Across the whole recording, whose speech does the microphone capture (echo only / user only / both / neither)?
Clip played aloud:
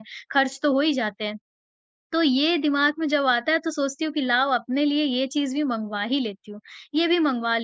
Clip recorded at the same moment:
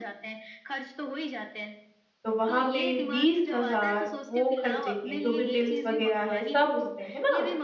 both